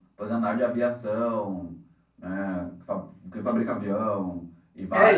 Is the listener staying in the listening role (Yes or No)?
No